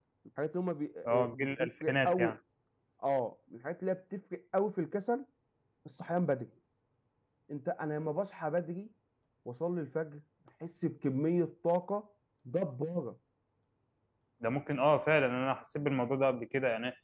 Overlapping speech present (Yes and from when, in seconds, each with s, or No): Yes, from 1.1 s